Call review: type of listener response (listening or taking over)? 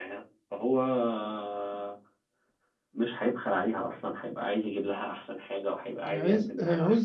taking over